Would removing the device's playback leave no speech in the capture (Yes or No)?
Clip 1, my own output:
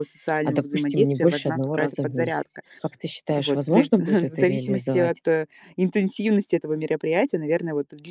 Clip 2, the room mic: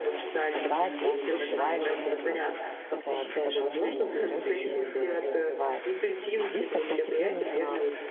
No